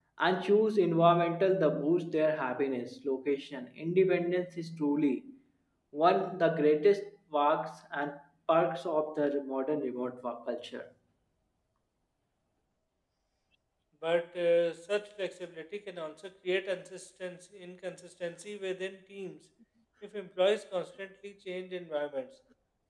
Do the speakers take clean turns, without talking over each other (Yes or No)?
Yes